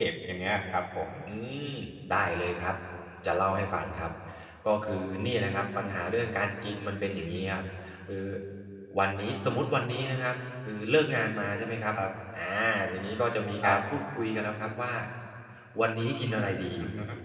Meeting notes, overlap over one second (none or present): none